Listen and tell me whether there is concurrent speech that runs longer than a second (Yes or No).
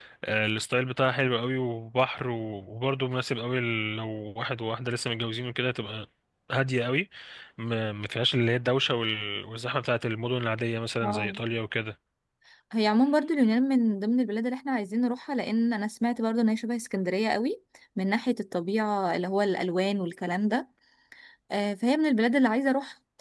No